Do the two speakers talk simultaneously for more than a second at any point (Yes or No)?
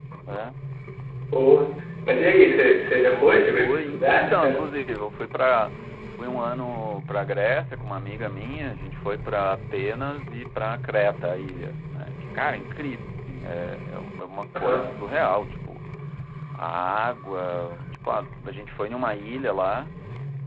Yes